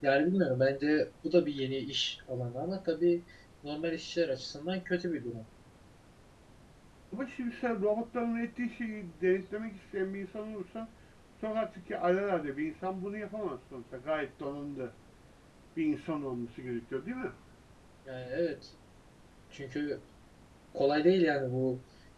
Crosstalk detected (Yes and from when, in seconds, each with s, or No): No